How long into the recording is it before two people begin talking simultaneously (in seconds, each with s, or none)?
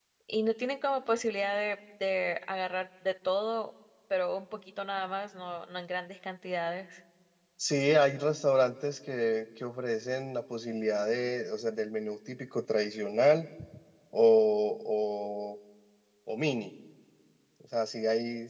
none